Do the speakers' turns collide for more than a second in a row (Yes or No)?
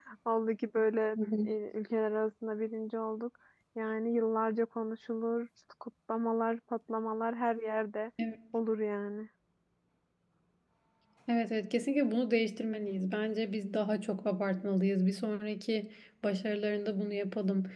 No